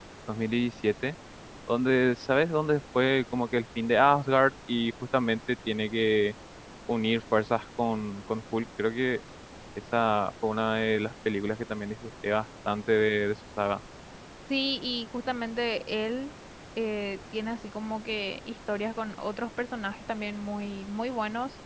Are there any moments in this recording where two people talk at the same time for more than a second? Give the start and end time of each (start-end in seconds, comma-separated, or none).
none